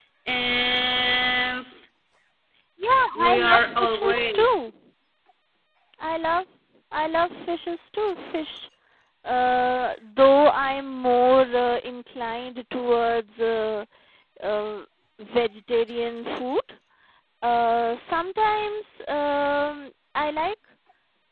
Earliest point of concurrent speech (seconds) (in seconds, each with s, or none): 3.2 s